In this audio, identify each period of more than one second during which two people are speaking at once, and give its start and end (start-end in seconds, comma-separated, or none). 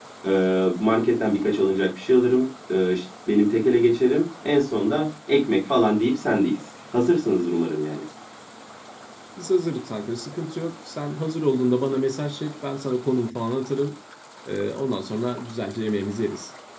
none